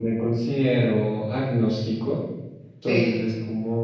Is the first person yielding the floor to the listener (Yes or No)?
No